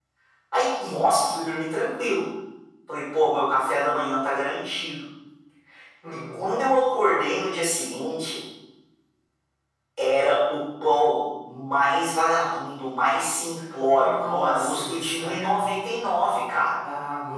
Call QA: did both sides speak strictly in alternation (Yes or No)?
No